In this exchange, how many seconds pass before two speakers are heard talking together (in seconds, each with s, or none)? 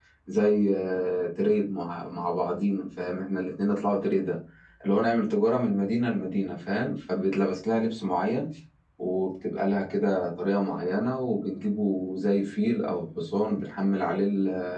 none